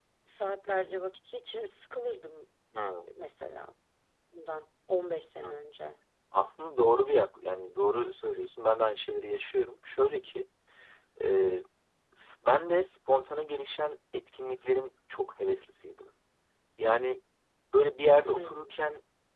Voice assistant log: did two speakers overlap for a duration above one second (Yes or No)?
No